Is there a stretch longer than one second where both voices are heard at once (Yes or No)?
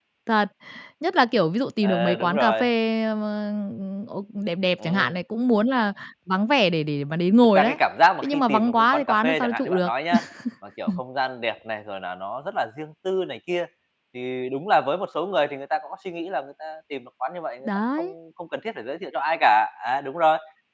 Yes